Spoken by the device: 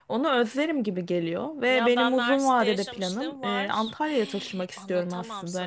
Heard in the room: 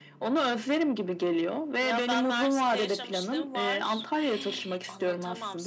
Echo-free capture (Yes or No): No